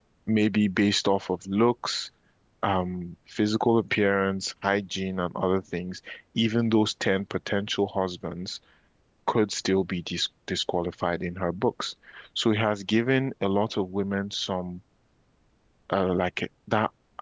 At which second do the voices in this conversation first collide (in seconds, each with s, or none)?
none